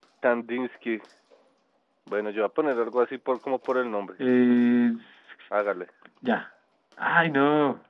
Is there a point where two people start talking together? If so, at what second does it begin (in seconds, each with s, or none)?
none